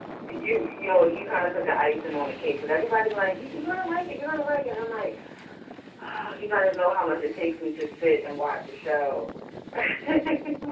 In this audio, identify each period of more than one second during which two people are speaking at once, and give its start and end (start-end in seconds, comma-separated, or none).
none